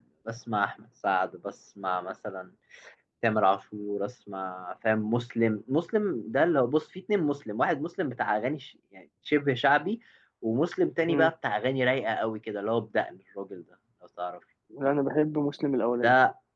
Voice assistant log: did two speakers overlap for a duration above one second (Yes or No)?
No